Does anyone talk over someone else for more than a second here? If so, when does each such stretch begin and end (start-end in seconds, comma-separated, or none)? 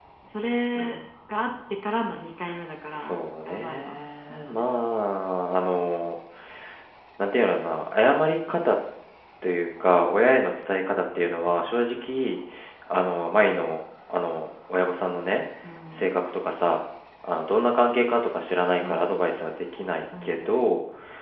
2.9-4.6